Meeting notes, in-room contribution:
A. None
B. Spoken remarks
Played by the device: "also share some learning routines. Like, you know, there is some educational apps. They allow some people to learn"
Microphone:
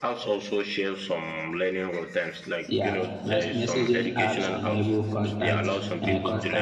B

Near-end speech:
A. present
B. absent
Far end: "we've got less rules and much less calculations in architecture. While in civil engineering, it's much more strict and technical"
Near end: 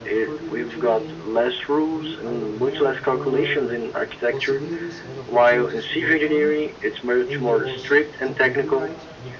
A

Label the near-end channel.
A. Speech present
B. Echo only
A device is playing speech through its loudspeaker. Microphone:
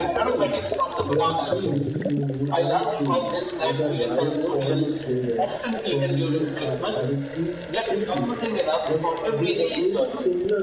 A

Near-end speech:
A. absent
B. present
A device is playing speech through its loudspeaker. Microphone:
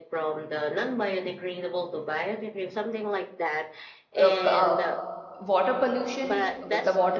B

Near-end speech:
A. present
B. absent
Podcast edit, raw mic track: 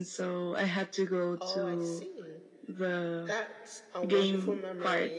A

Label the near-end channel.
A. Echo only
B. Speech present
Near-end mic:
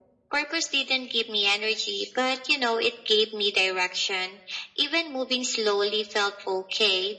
A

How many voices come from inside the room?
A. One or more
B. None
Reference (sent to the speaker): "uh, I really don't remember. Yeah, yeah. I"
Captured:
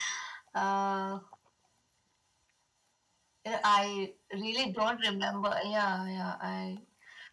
B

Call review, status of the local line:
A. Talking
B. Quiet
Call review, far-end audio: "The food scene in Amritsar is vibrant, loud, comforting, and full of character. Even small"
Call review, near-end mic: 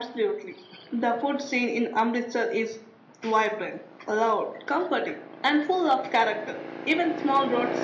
B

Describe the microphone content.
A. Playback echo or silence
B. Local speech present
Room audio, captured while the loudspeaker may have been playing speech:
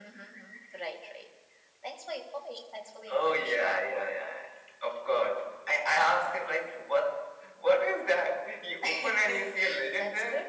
A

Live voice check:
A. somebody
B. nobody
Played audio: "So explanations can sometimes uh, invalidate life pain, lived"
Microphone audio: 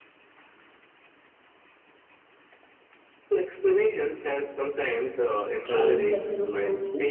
A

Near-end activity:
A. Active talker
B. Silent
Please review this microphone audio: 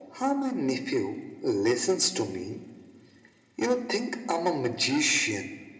B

